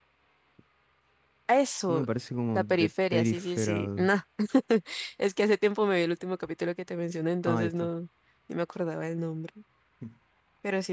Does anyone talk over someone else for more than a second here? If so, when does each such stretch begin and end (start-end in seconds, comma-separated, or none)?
2.6-4.1